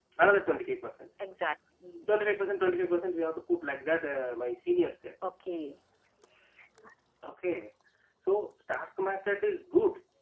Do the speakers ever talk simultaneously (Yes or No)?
No